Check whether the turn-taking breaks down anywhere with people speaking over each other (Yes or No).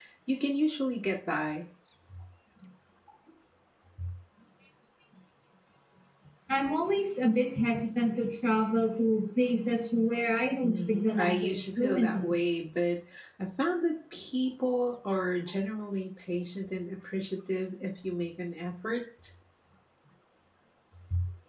Yes